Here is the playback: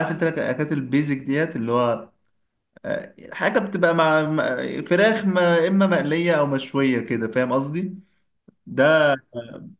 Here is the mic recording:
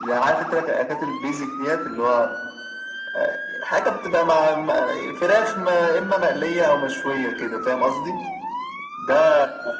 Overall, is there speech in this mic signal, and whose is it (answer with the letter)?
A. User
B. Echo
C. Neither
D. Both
B